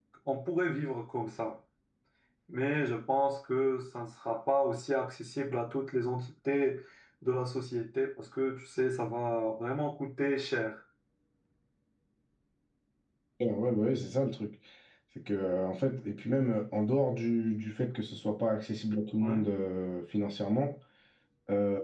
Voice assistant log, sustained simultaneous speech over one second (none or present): none